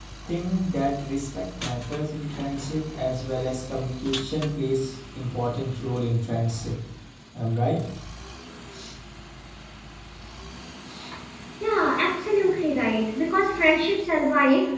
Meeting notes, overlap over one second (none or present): none